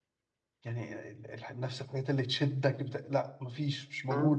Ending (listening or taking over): taking over